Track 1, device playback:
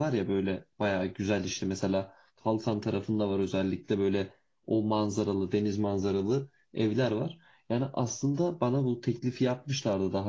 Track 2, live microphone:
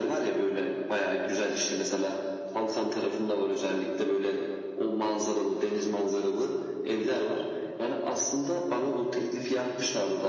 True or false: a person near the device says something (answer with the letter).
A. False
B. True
A